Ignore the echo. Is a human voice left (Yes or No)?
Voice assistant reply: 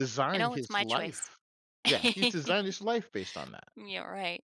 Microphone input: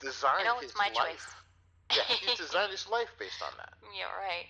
No